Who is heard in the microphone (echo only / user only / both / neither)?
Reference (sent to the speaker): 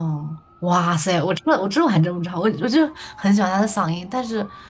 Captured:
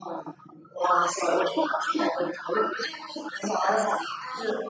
echo only